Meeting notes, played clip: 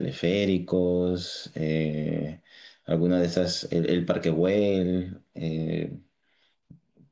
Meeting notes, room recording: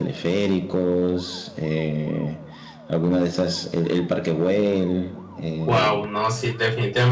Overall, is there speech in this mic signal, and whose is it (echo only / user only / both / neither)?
both